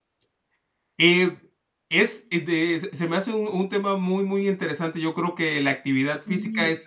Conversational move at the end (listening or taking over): listening